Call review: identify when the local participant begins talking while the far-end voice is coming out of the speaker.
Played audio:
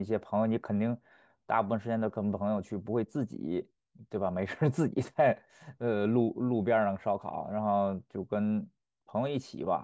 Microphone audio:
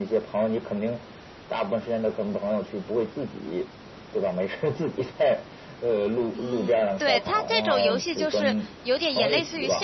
6.3 s

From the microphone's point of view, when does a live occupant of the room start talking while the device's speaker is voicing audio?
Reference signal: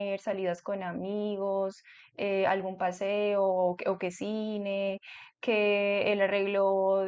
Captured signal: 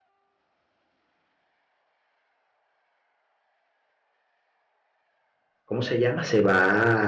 5.6 s

